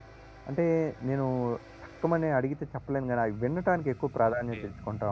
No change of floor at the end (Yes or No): No